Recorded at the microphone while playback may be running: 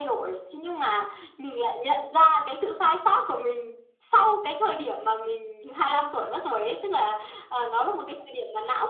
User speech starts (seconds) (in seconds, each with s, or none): none